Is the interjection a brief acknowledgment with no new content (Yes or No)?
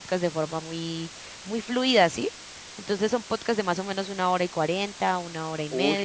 No